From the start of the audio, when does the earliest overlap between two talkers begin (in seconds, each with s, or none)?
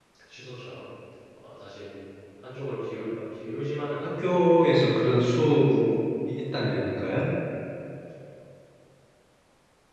4.0 s